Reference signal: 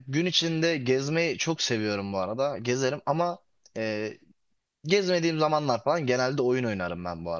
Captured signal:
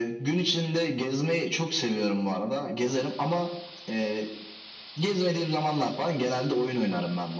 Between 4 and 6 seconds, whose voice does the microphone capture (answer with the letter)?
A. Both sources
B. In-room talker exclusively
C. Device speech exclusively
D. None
C